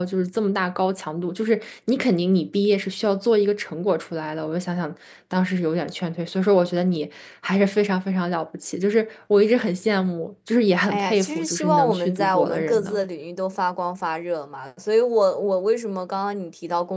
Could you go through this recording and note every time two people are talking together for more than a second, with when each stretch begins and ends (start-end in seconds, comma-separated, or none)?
10.9-13.0